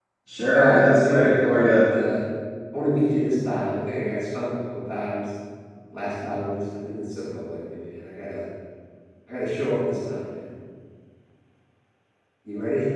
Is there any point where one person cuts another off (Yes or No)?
Yes